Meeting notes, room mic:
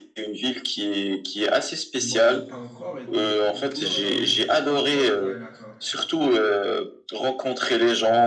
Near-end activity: present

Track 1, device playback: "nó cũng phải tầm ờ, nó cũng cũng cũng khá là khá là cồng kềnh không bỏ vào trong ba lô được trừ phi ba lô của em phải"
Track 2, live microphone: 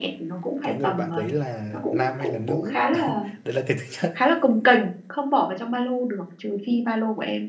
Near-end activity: present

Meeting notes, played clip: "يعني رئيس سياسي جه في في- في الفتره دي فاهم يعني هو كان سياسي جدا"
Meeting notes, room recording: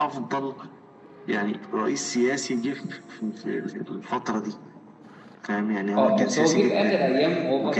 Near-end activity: present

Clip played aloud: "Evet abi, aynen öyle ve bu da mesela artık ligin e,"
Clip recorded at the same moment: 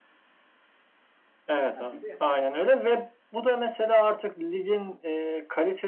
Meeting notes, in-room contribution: present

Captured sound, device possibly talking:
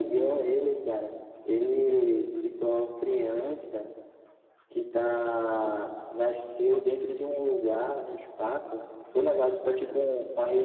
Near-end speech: none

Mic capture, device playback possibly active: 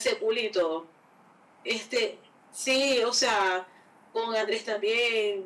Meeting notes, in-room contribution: none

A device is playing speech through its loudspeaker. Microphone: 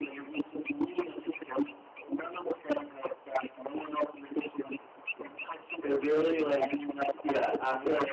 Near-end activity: present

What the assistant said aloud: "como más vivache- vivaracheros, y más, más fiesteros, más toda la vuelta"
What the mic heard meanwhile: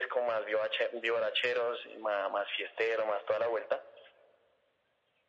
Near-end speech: none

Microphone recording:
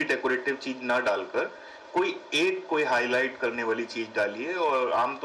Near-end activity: none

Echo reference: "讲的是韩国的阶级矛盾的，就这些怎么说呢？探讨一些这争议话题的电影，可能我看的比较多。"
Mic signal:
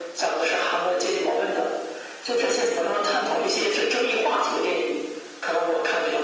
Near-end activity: present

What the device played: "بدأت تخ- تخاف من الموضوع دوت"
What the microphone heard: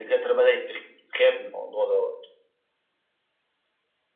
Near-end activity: none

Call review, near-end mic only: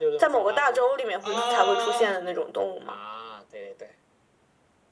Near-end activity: present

